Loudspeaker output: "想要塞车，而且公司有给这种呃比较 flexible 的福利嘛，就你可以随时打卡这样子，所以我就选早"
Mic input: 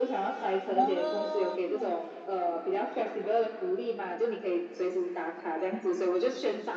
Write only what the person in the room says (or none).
哦，